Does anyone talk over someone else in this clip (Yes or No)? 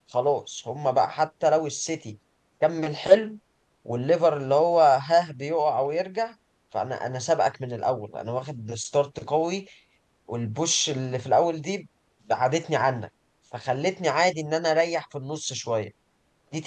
No